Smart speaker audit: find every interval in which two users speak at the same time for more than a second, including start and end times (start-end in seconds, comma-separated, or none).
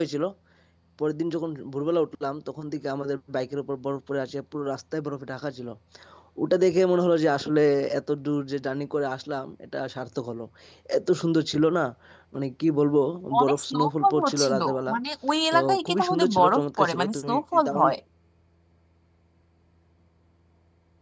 13.4-14.9, 15.5-17.9